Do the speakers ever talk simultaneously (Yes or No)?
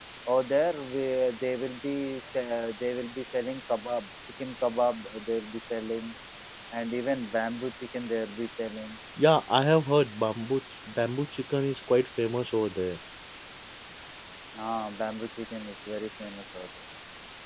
No